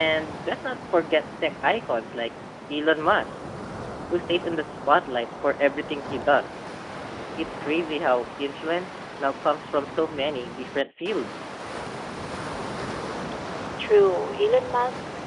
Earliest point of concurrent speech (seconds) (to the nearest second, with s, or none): none